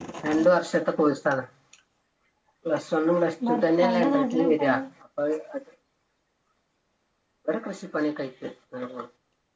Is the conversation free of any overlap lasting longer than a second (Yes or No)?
No